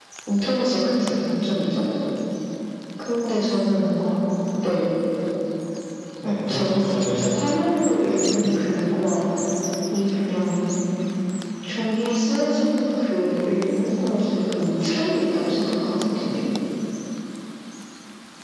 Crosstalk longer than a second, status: present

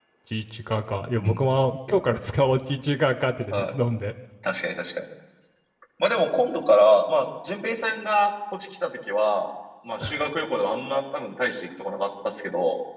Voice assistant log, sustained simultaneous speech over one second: none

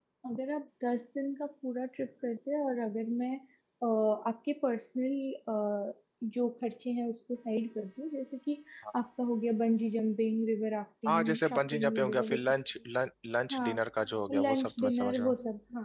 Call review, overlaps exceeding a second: present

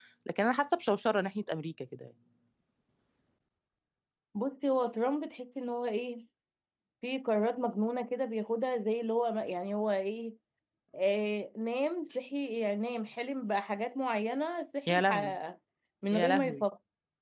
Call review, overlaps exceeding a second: none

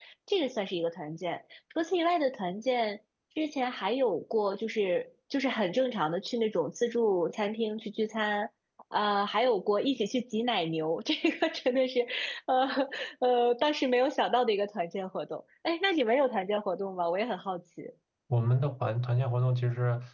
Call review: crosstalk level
none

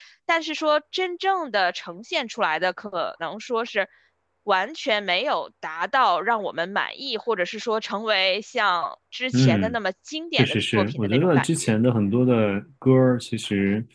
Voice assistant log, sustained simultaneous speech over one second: present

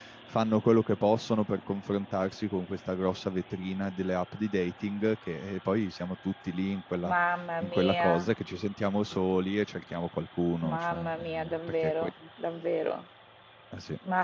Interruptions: present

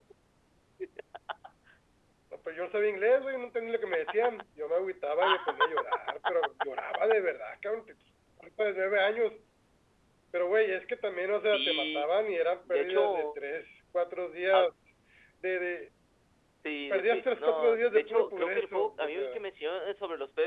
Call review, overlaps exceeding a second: present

